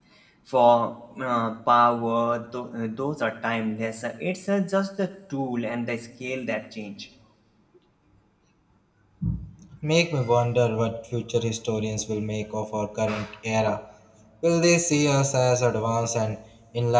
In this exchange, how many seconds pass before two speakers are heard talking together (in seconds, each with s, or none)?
none